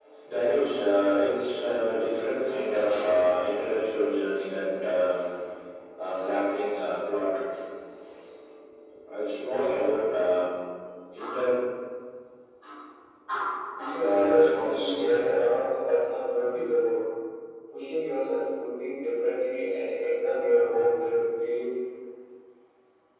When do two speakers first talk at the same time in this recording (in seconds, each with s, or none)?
14.0 s